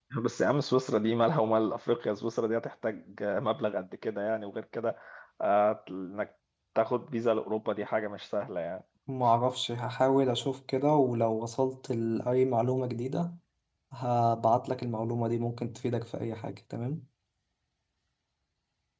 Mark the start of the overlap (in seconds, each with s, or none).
none